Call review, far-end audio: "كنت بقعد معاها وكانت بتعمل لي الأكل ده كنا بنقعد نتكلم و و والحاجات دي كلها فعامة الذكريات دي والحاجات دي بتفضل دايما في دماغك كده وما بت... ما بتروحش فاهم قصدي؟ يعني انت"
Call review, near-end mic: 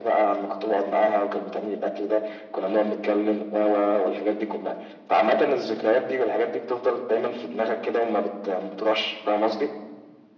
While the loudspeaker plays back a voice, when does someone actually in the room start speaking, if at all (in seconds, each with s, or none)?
none